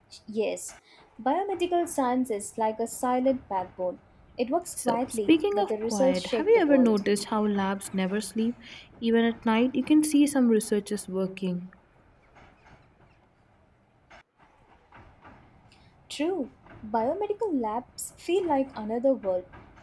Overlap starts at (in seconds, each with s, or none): 4.8 s